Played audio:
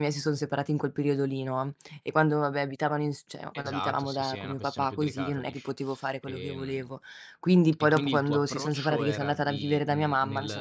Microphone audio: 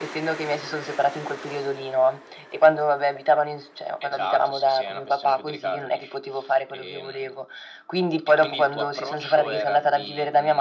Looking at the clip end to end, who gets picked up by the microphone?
echo only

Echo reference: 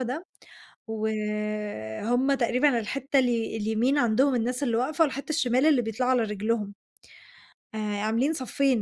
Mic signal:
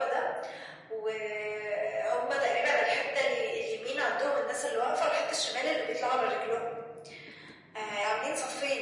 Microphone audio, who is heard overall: echo only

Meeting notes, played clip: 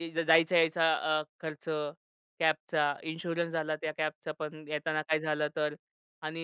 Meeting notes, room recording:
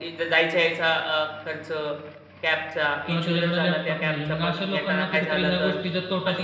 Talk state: both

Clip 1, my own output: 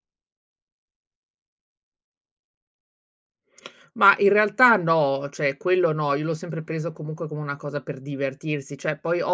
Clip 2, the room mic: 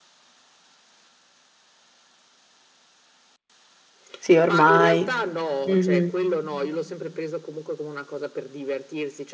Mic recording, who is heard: both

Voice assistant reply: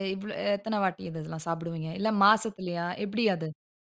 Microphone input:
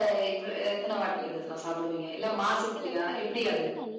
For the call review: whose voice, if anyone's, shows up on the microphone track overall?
both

